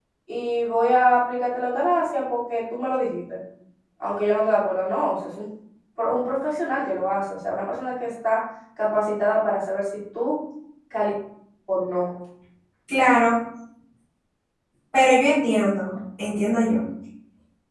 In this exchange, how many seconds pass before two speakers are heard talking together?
none

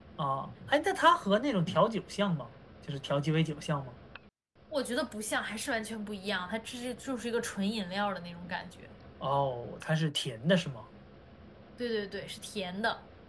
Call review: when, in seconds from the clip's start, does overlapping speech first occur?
none

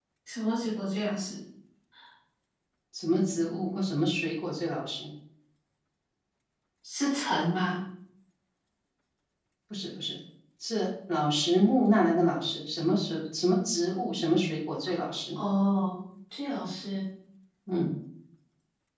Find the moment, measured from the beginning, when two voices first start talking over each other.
none

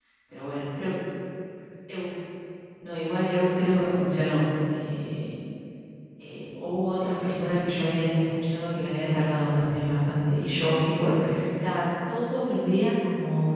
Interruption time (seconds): none

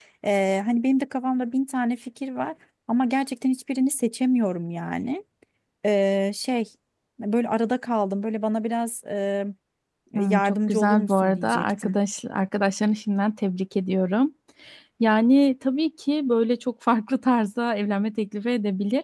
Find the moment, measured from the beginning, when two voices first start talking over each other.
10.2 s

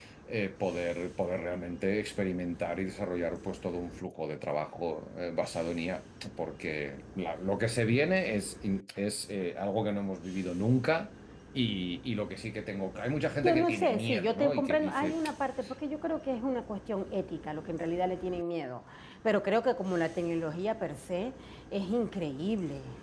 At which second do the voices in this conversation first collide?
13.4 s

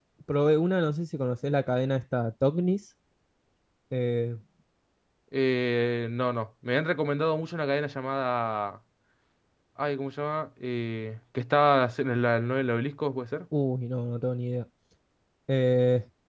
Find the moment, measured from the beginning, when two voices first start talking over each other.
none

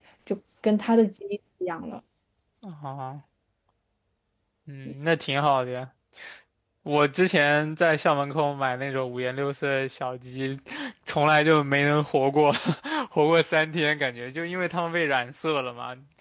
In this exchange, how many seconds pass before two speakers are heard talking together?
none

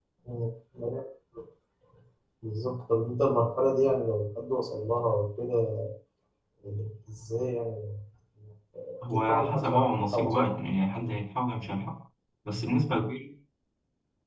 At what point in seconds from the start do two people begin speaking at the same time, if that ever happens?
9.1 s

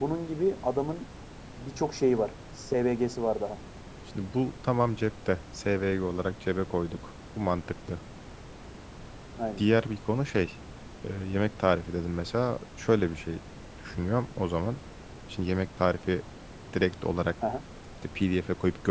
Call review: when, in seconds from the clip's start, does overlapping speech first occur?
none

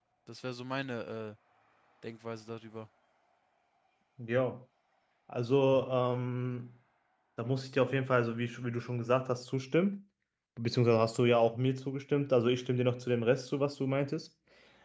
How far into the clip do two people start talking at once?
none

